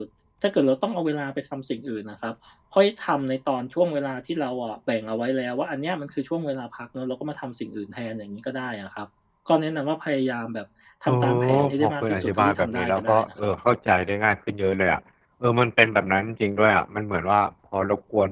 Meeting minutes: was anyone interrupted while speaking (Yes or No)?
Yes